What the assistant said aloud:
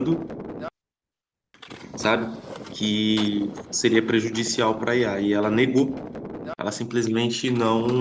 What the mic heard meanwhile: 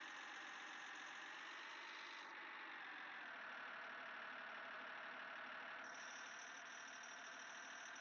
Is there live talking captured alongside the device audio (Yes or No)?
No